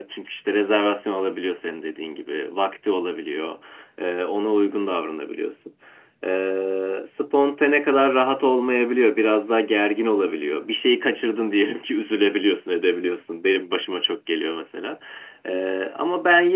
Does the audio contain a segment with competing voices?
No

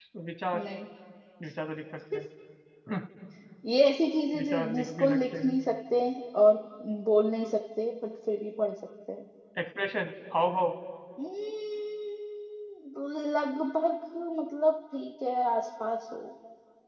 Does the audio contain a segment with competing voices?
Yes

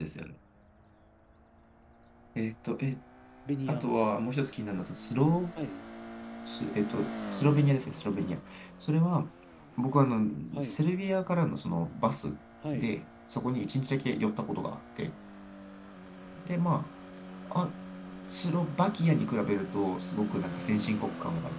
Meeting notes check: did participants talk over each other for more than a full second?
No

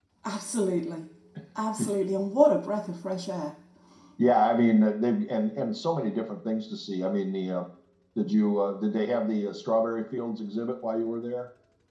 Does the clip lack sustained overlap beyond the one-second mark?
Yes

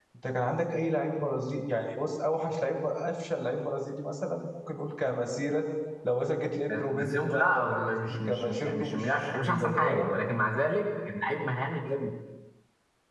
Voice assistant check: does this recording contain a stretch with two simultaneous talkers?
Yes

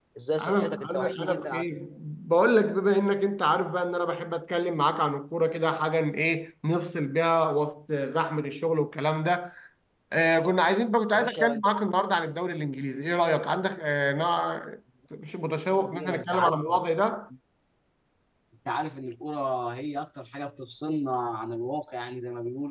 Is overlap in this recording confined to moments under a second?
No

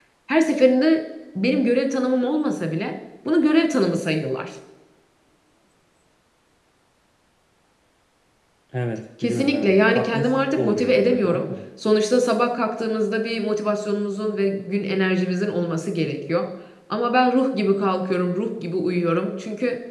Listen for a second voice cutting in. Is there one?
Yes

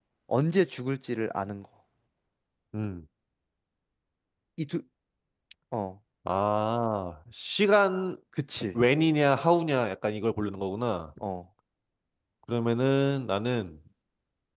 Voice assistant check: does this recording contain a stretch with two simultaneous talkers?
No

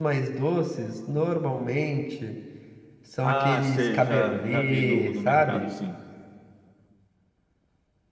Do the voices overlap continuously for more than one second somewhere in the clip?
Yes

